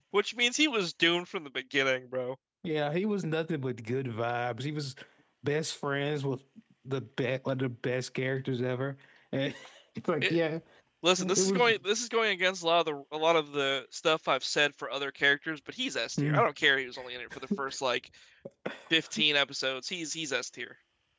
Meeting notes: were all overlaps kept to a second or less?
Yes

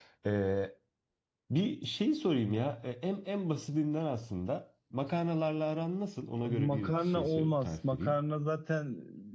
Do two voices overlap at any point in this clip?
Yes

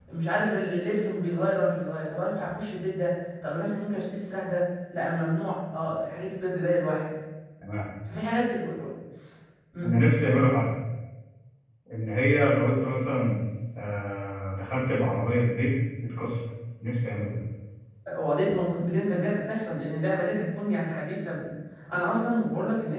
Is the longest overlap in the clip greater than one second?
No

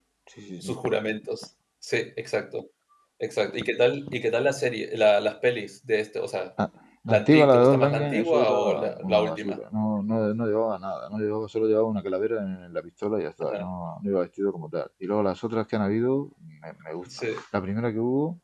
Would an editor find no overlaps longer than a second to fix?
No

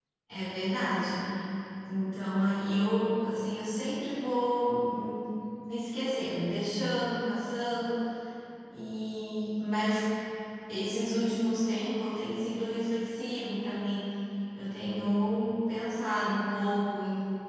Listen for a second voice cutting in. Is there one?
No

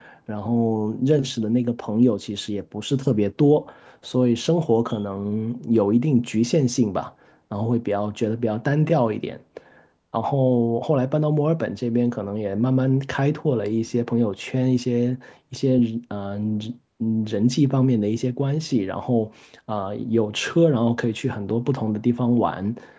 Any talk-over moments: No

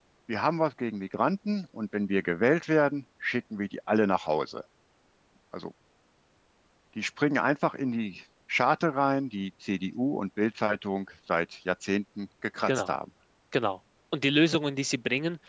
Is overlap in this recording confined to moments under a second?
Yes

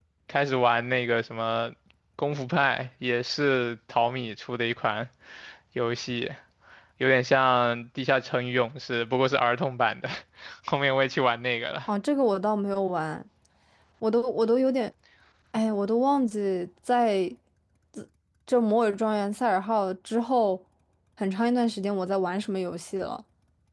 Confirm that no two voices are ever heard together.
Yes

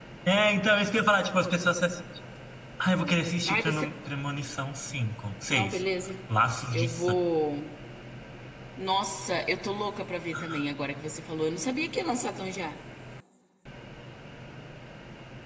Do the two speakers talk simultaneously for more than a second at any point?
No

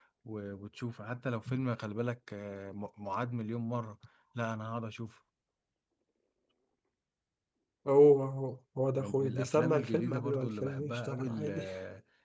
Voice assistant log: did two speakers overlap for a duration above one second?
Yes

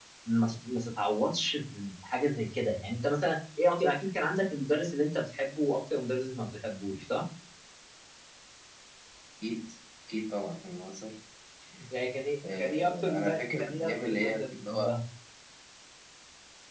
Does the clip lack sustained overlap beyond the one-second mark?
No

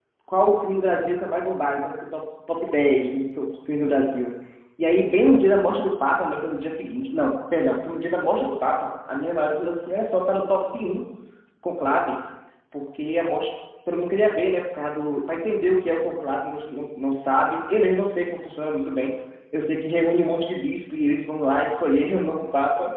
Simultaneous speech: No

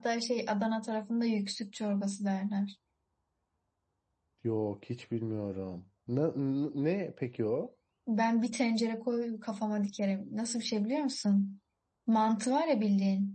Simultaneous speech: No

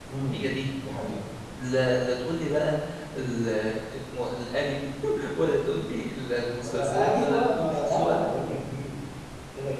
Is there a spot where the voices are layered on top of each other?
Yes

